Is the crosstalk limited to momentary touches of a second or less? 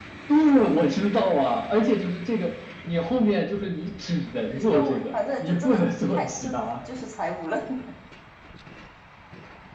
No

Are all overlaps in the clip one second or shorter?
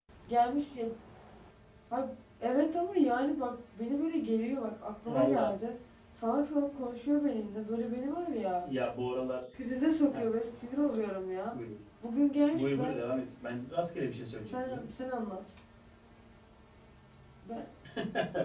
Yes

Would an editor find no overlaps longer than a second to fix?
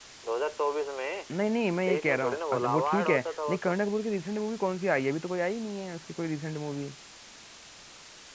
No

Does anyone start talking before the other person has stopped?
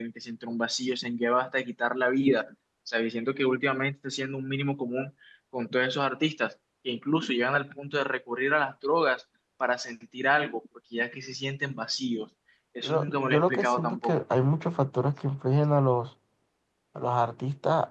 Yes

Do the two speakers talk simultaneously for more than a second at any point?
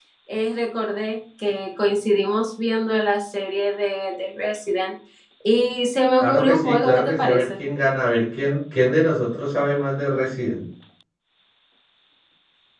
Yes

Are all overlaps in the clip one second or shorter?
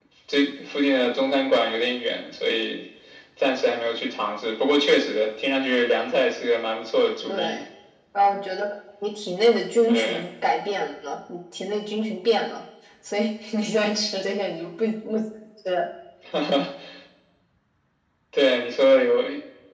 Yes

